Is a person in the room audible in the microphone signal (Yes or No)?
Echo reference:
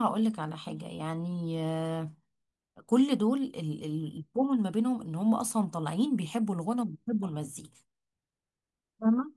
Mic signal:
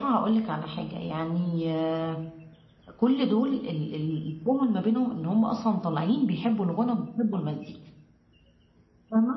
No